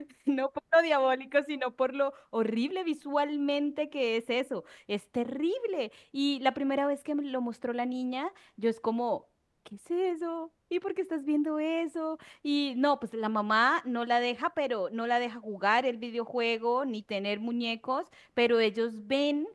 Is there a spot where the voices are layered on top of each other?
No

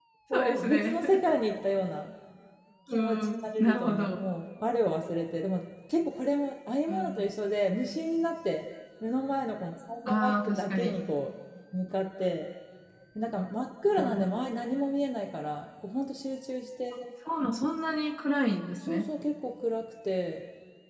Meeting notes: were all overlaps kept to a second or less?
No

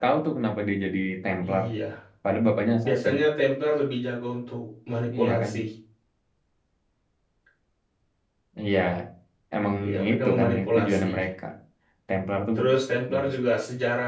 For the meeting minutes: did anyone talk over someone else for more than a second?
Yes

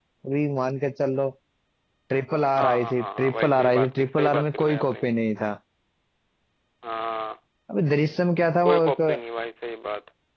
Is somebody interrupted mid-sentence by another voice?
Yes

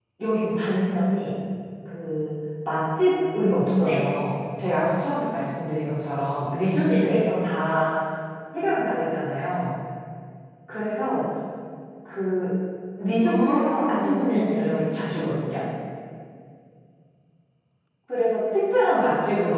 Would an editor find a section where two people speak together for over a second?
Yes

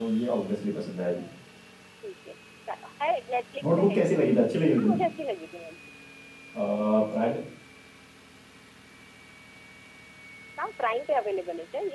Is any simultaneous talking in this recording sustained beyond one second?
No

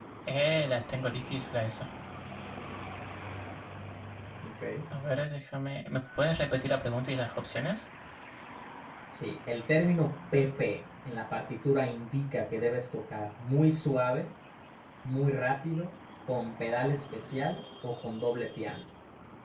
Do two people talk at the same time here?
No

